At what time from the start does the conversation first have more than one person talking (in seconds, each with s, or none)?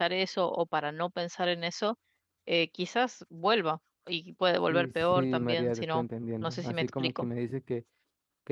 4.7 s